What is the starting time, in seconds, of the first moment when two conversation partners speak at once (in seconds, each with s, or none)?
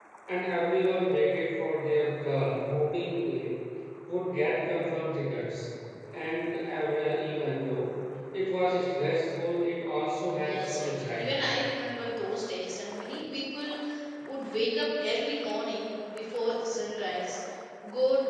10.3 s